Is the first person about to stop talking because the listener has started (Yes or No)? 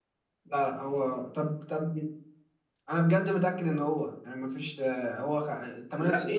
No